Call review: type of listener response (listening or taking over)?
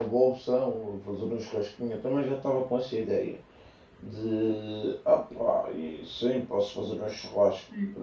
taking over